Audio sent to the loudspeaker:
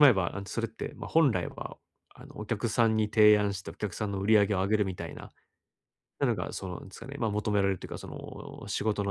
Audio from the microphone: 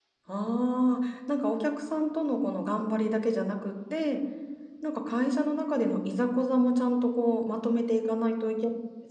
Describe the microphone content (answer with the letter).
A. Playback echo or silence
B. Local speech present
B